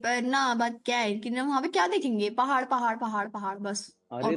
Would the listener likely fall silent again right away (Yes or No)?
No